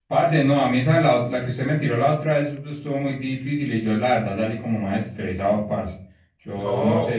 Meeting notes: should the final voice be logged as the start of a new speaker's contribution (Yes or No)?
Yes